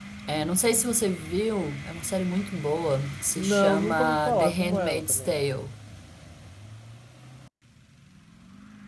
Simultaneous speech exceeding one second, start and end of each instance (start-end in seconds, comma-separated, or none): 3.4-5.3